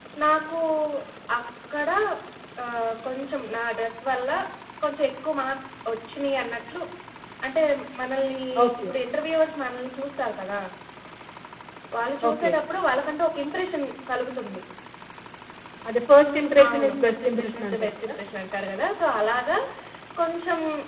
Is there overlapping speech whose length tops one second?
Yes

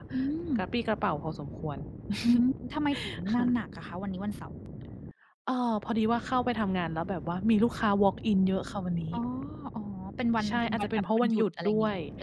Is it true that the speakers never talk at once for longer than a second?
No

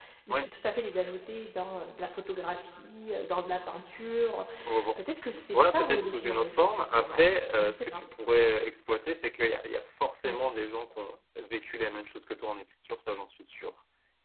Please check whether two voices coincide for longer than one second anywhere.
Yes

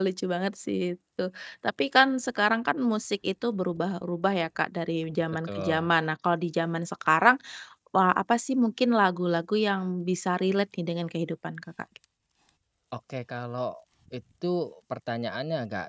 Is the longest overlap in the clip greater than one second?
No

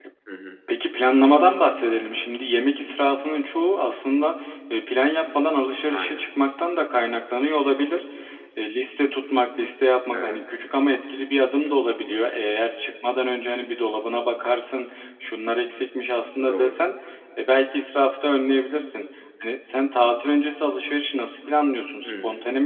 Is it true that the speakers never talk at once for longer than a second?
Yes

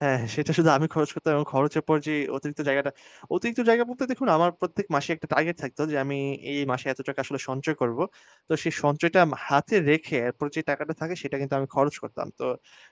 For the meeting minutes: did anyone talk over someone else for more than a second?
No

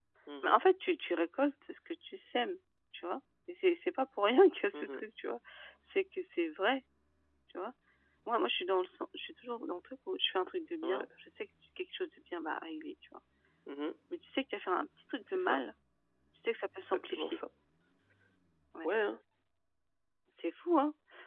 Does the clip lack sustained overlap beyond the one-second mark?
Yes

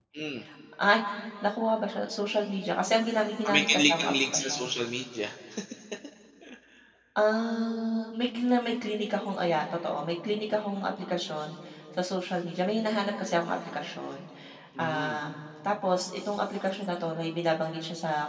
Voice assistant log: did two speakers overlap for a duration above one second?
Yes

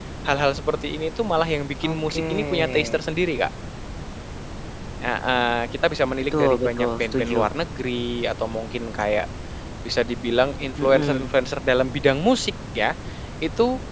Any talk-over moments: Yes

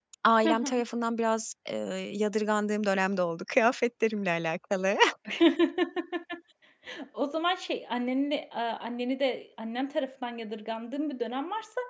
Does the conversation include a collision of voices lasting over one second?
No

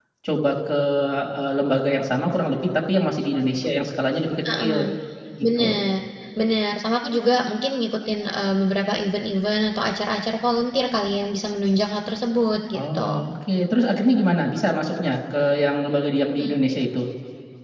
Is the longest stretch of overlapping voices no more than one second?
Yes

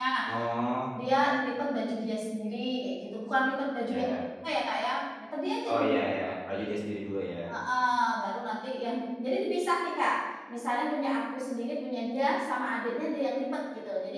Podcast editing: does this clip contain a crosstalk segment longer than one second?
No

